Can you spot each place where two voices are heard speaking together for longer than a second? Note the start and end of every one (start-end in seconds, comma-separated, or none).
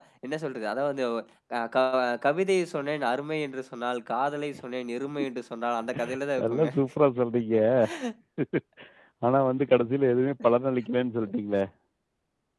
none